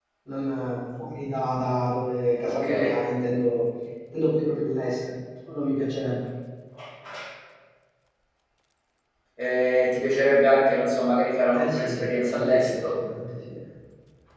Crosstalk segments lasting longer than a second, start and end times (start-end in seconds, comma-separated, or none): 11.5-12.8